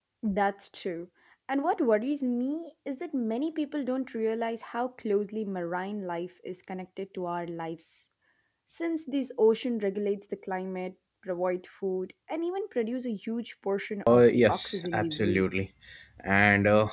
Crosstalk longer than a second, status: present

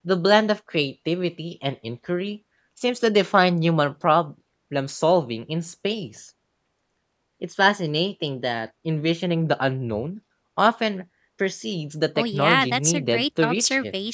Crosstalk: present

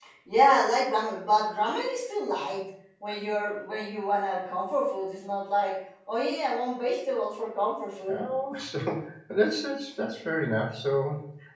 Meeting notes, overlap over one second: none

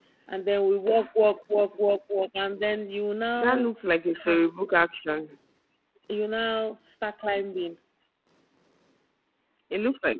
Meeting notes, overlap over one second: none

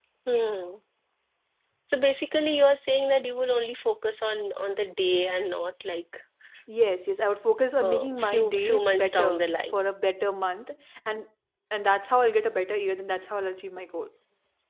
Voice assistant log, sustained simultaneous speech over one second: present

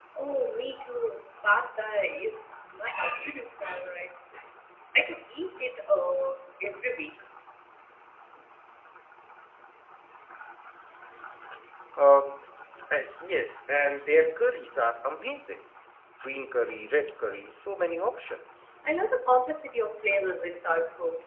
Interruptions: none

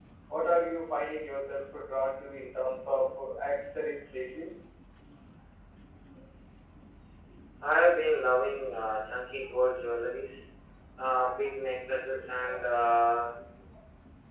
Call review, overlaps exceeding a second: none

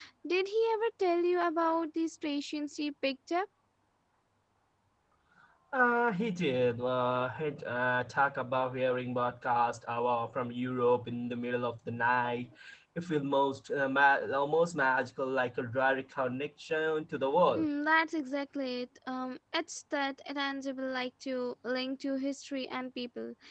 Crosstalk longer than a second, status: none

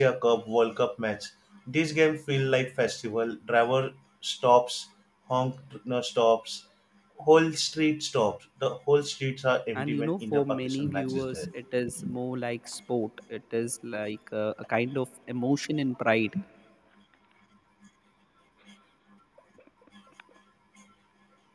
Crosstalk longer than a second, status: present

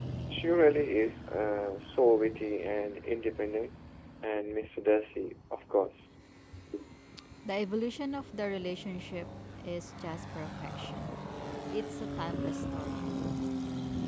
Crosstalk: none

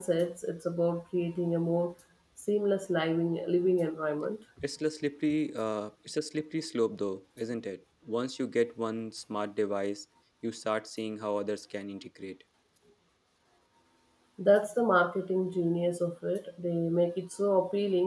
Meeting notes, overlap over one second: none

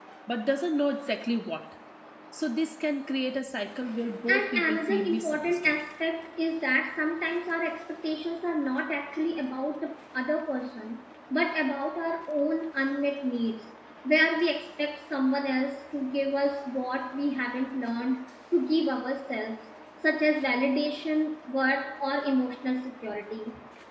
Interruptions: present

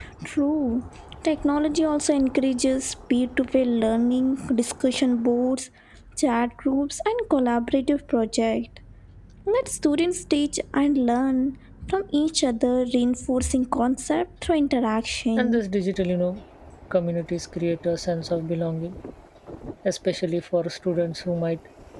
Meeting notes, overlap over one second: none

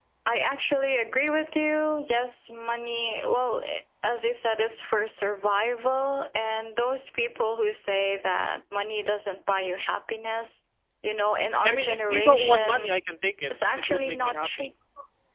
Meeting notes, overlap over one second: present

